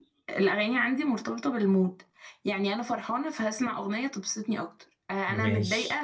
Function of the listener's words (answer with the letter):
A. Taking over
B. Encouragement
B